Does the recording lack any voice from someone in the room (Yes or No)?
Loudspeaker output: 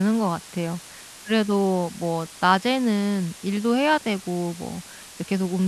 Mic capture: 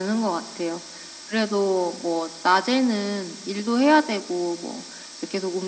Yes